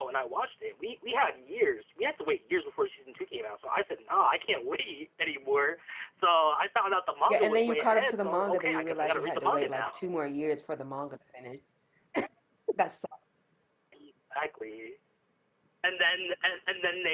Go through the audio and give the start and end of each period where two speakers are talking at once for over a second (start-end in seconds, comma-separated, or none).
7.3-10.0